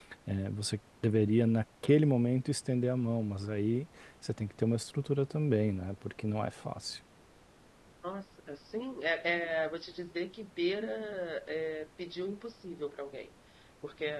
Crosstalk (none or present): none